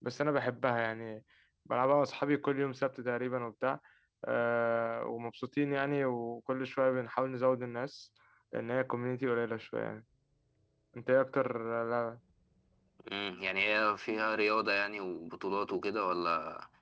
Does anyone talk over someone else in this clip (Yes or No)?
No